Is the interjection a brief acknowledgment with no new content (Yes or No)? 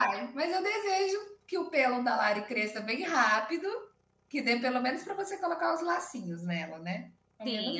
No